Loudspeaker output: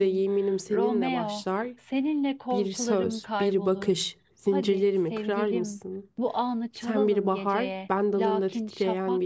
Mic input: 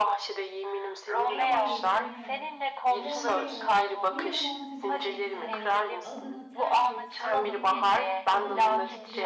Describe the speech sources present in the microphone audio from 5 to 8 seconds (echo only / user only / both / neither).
both